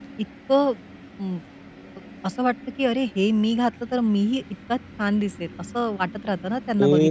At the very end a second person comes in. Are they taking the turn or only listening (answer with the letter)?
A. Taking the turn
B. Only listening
A